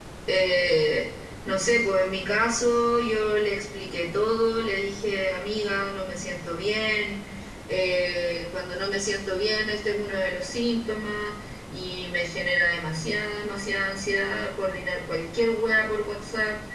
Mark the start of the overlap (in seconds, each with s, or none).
none